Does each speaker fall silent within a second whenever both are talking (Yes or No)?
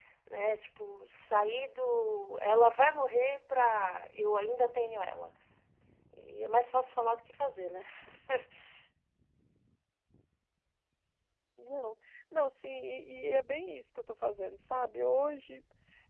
Yes